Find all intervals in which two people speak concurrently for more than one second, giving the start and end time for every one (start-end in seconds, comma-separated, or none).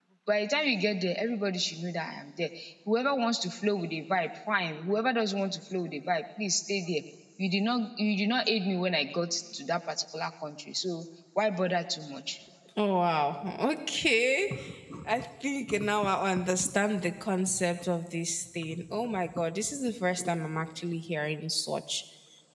none